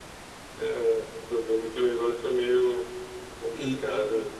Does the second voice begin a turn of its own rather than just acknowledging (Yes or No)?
Yes